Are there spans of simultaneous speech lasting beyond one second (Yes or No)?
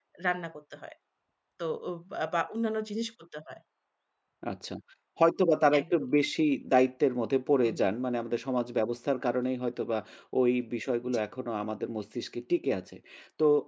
No